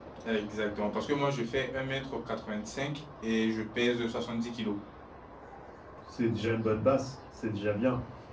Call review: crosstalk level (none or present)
none